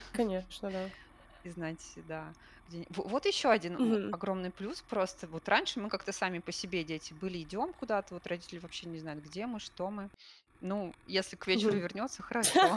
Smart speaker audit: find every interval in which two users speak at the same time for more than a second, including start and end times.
none

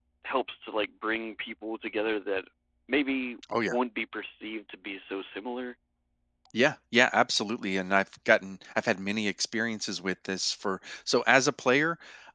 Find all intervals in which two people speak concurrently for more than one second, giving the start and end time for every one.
none

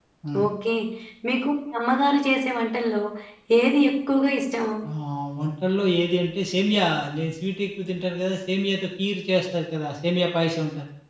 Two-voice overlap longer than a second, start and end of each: none

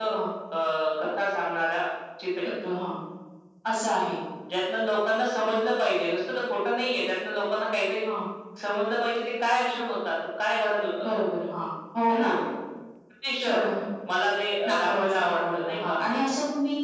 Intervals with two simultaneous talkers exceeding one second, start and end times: 14.7-16.0

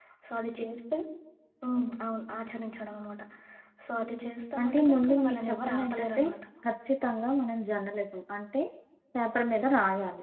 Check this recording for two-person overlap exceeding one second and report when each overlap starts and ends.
4.6-6.2

